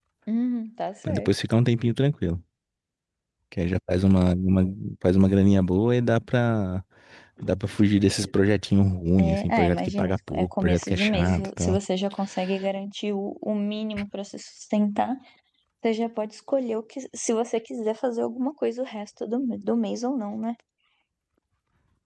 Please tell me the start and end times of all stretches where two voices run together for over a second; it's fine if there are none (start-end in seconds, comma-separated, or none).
9.2-11.8